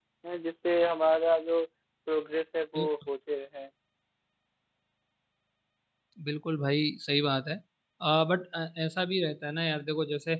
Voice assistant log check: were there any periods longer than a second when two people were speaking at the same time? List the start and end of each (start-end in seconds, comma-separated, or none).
none